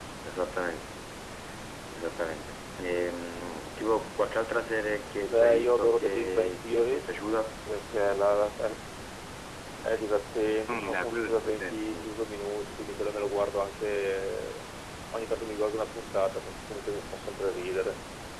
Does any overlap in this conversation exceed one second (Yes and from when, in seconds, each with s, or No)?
Yes, from 5.3 s